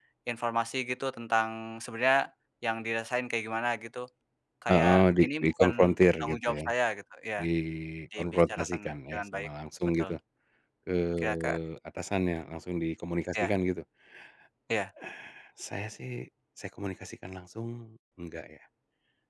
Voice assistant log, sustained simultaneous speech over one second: present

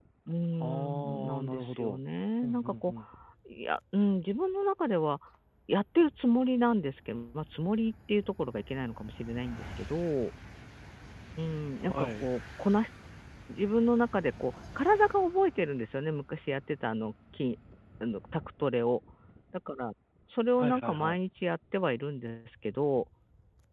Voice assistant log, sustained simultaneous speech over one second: present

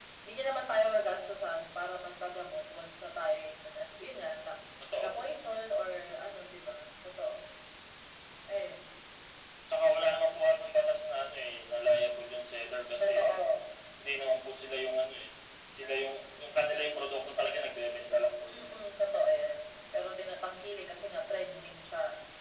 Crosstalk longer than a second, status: none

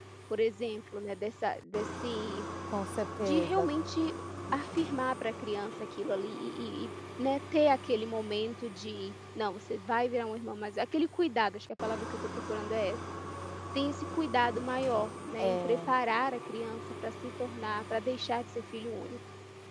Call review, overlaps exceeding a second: none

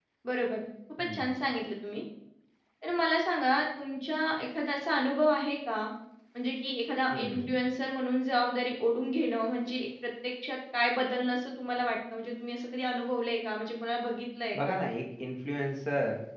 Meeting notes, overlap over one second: none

